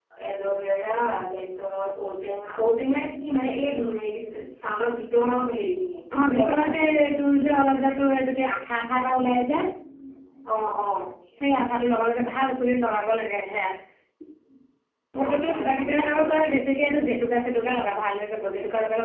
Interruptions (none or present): present